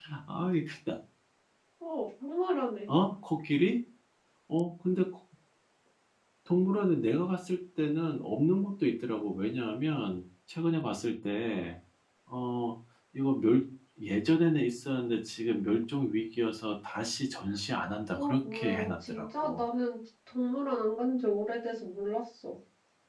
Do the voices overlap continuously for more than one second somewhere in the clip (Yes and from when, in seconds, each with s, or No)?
Yes, from 18.2 s